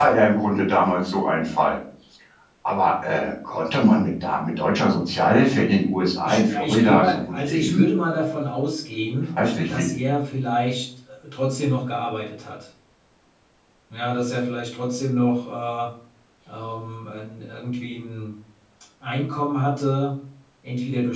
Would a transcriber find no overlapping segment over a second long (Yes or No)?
No